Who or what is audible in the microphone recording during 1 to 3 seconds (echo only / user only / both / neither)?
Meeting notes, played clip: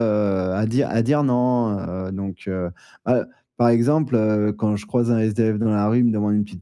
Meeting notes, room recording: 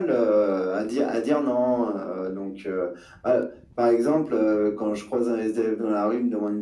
echo only